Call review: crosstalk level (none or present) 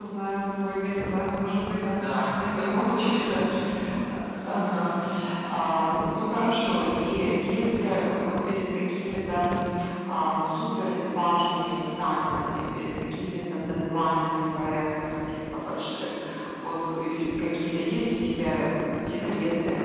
present